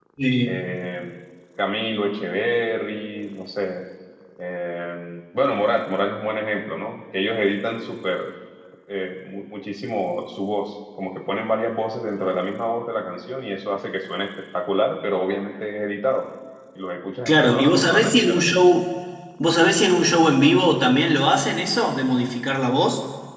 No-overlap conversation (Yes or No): No